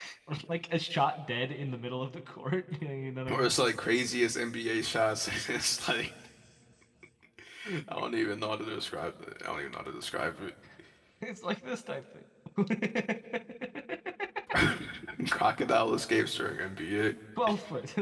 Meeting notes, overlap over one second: none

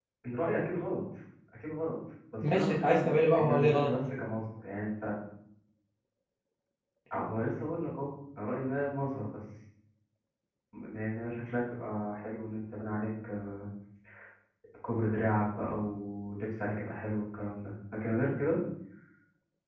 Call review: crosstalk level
present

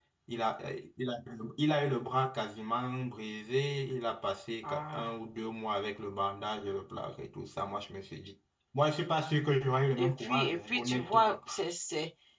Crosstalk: present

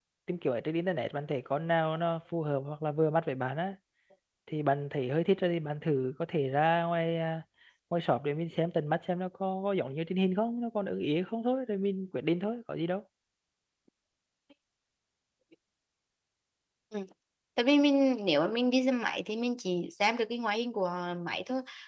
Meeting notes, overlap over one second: none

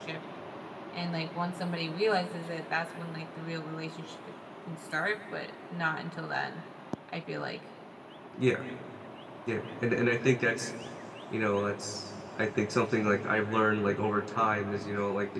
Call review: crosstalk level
none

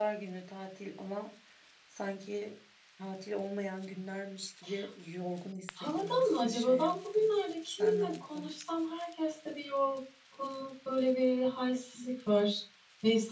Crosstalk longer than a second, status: present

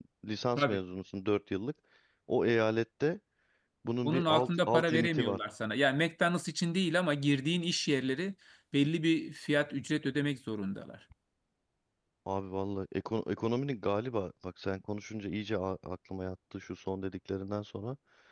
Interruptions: present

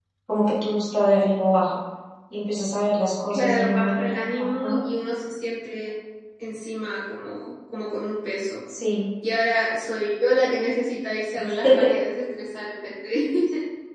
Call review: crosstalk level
present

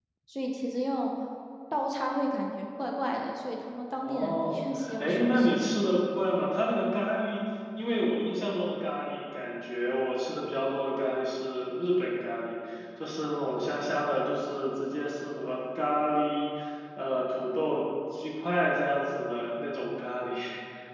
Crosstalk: present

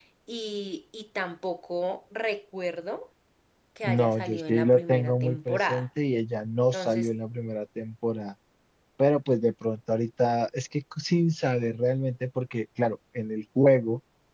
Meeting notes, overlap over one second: present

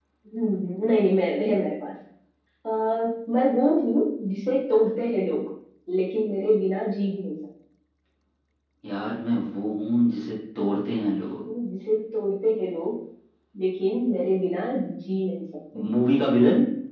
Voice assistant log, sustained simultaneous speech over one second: none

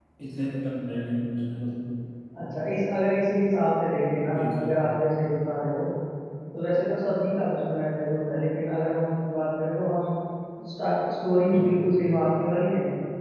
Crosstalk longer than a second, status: none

